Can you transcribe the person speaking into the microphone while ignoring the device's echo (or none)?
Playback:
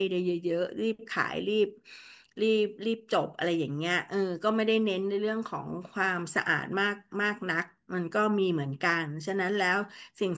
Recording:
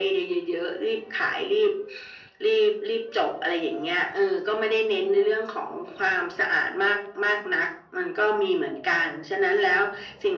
none